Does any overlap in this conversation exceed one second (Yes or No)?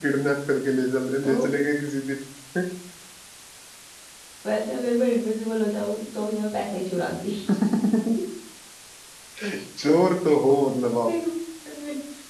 No